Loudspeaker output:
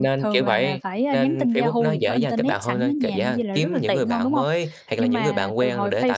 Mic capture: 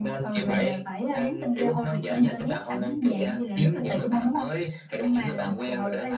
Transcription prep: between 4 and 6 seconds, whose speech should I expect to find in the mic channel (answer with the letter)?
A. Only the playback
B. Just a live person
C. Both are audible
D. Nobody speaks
A